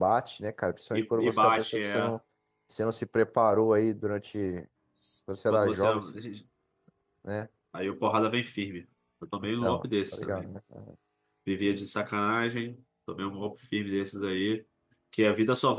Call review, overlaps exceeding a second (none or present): present